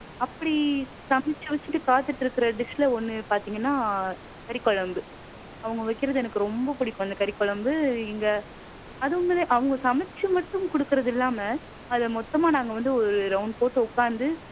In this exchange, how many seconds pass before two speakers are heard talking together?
none

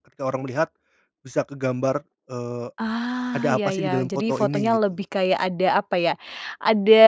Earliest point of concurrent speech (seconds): 3.3 s

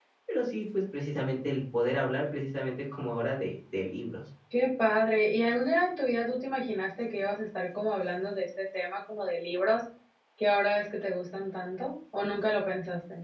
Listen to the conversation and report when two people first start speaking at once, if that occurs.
none

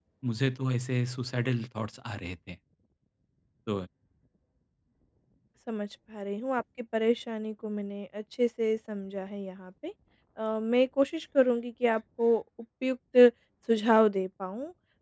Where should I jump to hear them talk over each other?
none

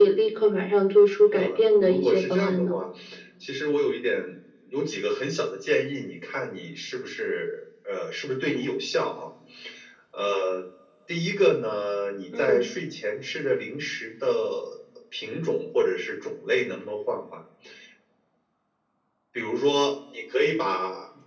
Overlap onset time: 1.4 s

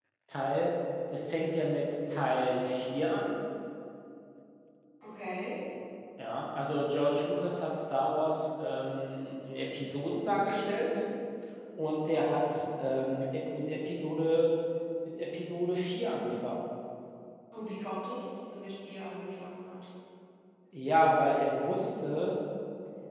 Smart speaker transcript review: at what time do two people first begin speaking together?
none

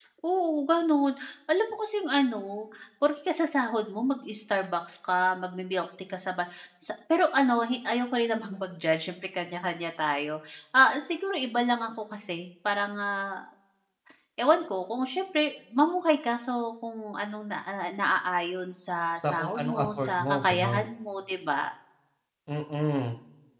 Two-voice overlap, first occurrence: 19.2 s

